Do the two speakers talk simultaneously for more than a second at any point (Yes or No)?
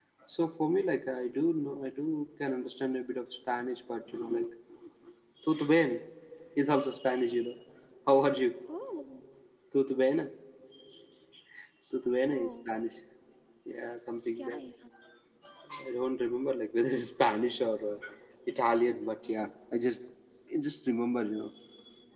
No